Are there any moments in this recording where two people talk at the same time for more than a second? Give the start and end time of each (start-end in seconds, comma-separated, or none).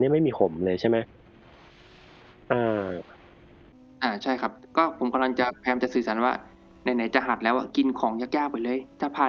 none